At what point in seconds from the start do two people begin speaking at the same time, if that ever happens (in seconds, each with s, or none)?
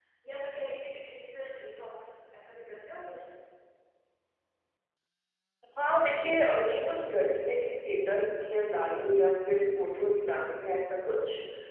none